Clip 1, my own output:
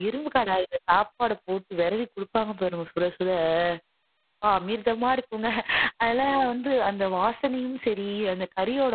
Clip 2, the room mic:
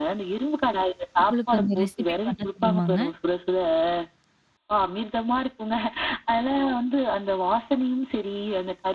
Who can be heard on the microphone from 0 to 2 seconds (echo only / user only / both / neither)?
both